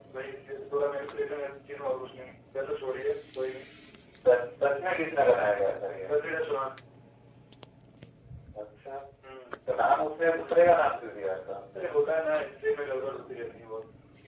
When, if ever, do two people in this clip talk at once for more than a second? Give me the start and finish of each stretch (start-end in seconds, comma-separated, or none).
none